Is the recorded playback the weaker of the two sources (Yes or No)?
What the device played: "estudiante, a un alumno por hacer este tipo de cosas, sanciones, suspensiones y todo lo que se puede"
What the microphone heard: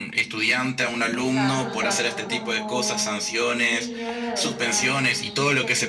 No